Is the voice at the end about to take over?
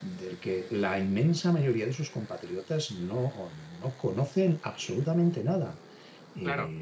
Yes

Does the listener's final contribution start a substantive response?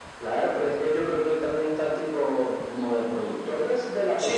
Yes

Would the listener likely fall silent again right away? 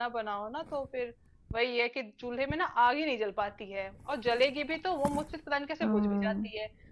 Yes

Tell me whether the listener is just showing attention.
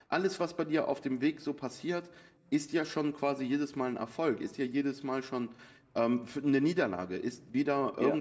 Yes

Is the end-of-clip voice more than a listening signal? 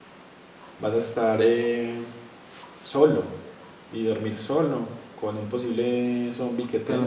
Yes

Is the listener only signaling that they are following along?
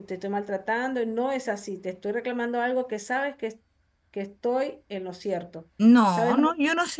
No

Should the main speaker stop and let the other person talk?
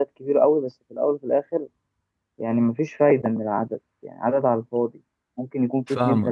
No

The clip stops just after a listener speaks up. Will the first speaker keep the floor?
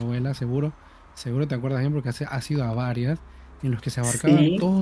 Yes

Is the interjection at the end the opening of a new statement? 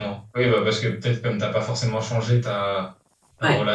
No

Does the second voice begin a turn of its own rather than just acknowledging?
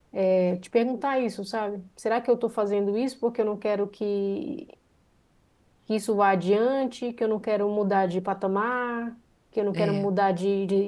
No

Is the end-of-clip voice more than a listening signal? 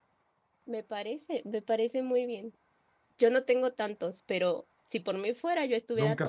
Yes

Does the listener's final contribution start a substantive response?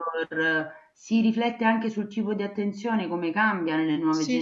Yes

